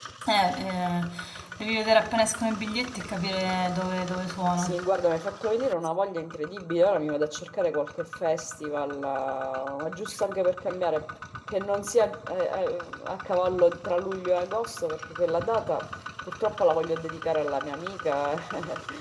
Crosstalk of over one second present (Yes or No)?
No